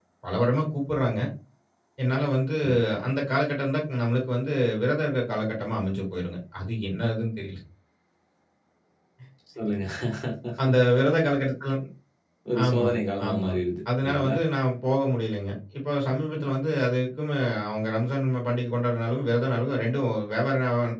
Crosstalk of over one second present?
No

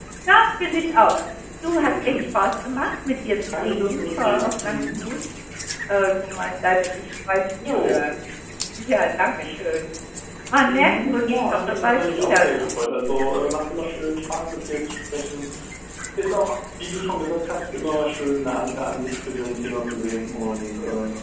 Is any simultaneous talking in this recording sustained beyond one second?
Yes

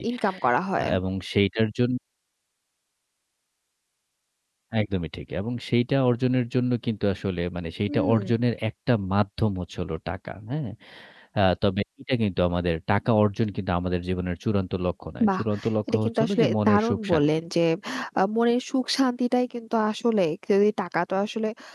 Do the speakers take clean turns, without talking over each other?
No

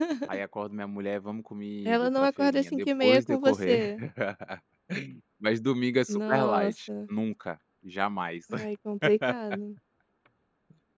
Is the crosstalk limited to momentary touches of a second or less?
No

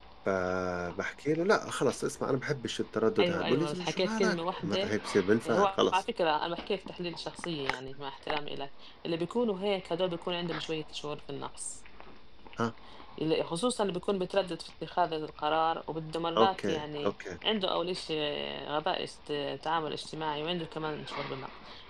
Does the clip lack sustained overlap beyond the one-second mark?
No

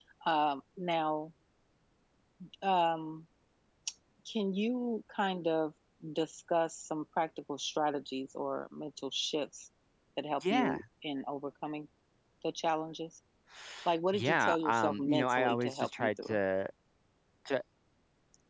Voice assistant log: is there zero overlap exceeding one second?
No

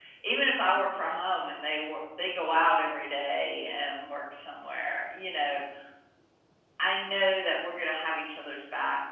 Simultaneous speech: No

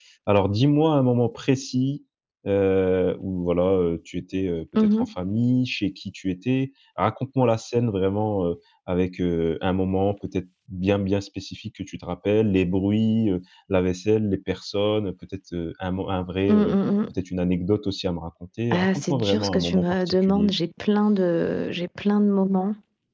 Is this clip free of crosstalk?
No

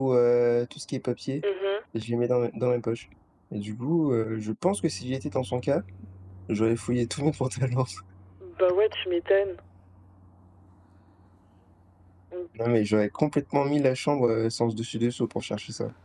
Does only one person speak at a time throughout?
Yes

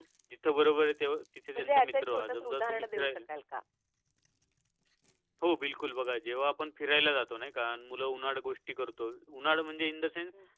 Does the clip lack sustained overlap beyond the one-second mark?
No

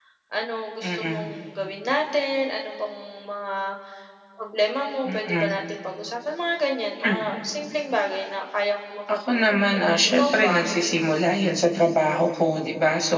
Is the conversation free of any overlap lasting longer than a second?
No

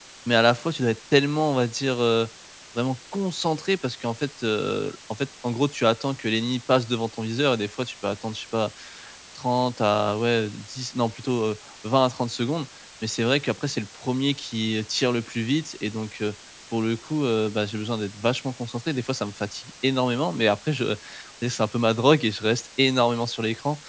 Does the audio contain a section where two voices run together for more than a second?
No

